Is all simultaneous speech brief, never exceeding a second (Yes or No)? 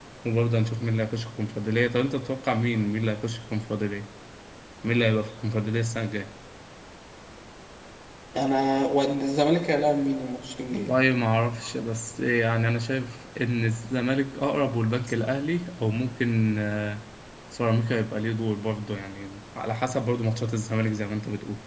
Yes